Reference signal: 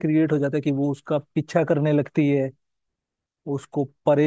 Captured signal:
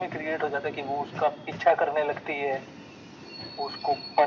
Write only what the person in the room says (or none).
none